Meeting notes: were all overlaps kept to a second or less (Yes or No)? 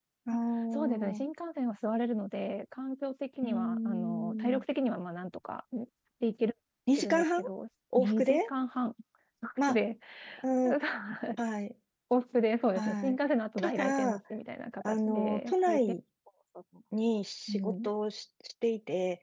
No